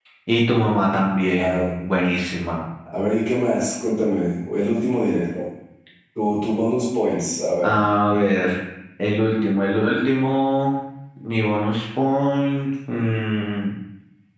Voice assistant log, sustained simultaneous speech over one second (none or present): none